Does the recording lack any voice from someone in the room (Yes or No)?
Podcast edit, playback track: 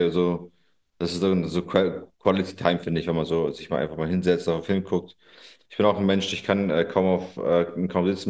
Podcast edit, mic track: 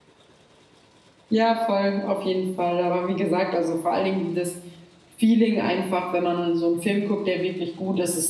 No